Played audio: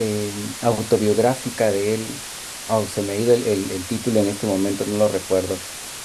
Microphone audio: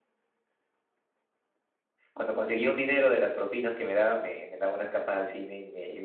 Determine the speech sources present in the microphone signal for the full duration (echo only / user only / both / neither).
user only